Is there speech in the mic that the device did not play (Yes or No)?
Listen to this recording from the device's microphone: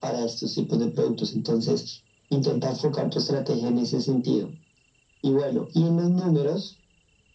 No